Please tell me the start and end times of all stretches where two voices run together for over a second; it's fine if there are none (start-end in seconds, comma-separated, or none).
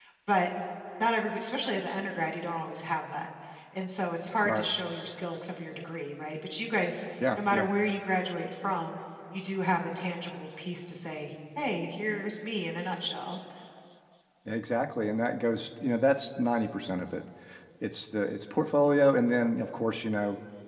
none